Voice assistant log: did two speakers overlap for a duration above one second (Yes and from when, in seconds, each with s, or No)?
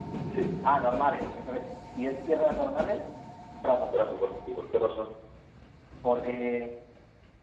No